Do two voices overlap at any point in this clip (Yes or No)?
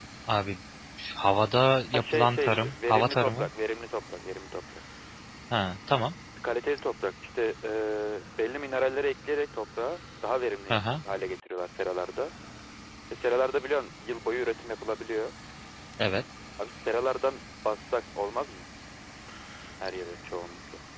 Yes